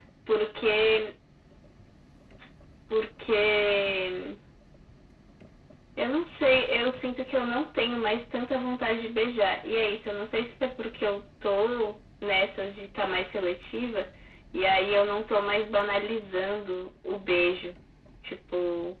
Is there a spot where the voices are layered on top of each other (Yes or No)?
No